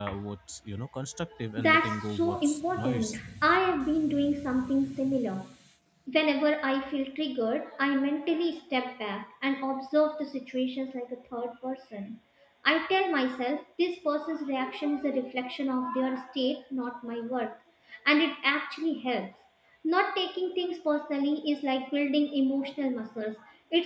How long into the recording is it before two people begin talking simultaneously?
1.6 s

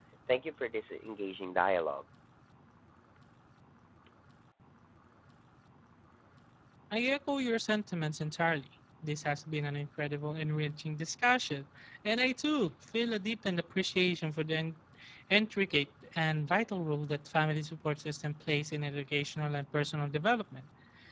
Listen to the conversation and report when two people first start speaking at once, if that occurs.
none

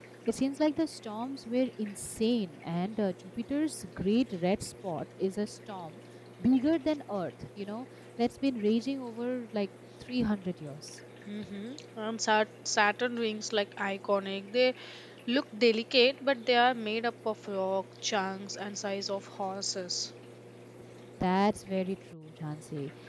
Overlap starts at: none

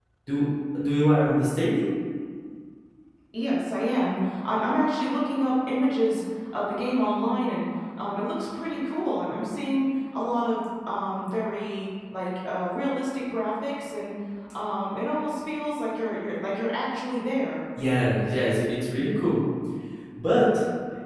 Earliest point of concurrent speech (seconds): none

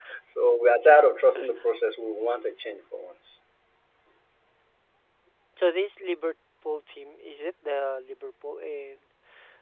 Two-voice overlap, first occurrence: none

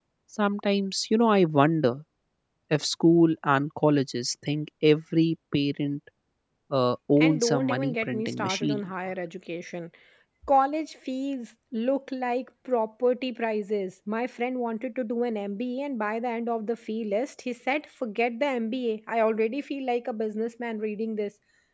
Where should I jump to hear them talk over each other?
7.2 s

